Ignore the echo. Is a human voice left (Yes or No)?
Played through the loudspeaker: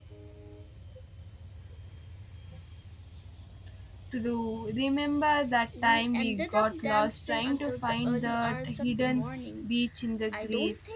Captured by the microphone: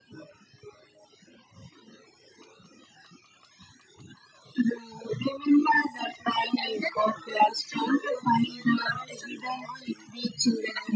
No